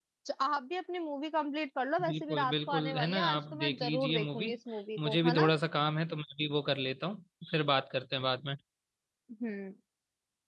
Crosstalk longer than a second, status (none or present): present